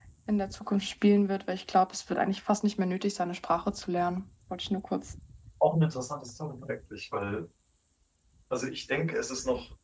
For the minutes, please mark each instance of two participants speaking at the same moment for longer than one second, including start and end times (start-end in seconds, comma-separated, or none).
none